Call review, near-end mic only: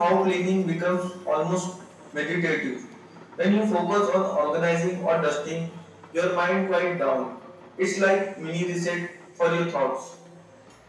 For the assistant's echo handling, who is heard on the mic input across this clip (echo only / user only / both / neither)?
echo only